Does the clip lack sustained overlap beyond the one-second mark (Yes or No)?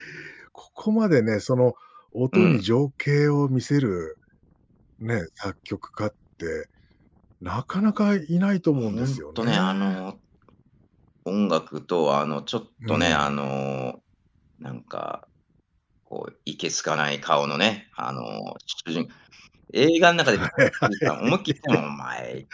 No